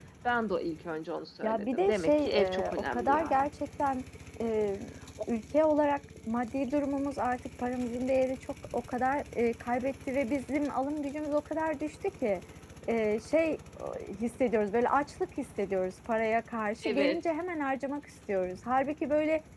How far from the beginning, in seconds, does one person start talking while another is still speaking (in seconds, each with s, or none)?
1.4 s